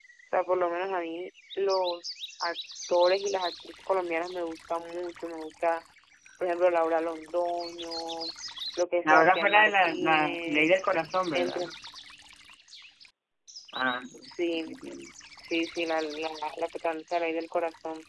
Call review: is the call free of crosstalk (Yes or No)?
No